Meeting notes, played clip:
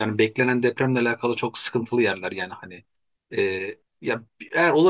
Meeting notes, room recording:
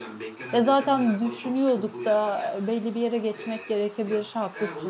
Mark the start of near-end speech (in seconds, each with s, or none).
0.5 s